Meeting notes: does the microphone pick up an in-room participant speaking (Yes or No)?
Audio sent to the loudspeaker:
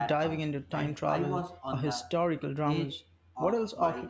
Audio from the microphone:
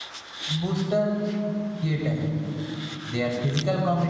Yes